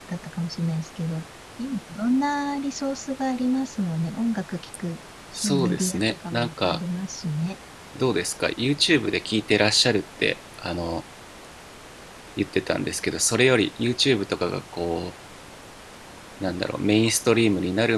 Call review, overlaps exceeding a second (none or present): present